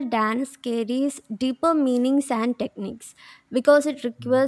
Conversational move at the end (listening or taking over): listening